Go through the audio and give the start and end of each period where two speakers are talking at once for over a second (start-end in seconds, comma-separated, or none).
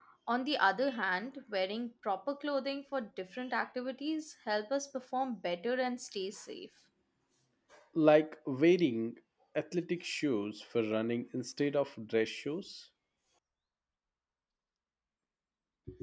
none